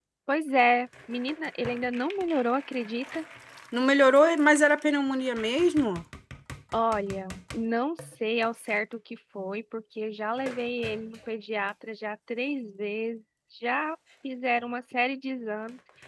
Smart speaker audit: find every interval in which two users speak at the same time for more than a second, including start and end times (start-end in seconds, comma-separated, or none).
none